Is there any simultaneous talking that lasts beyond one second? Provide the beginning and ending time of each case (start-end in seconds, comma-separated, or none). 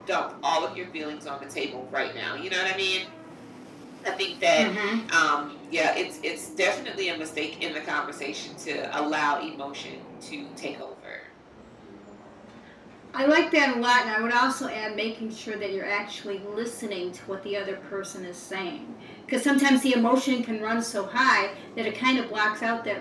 none